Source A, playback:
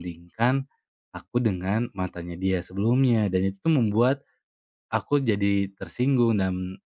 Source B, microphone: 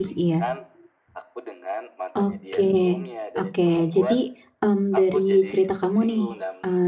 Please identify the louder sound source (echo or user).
user